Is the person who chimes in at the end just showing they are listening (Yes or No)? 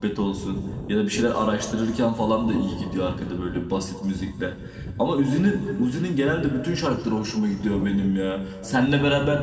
Yes